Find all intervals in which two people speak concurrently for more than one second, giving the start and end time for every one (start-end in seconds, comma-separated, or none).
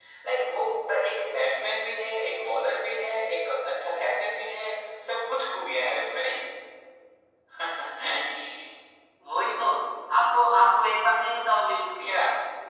none